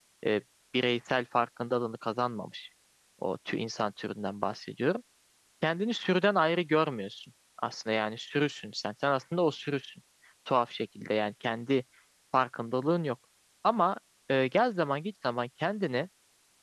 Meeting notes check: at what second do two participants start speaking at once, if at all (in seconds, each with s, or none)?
none